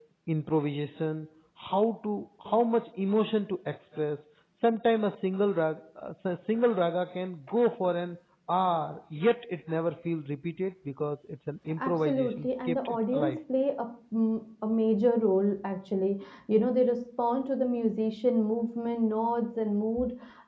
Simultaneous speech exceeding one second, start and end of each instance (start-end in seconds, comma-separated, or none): 11.8-13.4